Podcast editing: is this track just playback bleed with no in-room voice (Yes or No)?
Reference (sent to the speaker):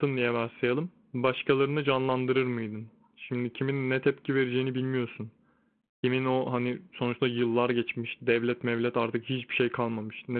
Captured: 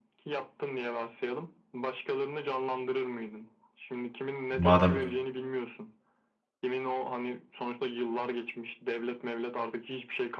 No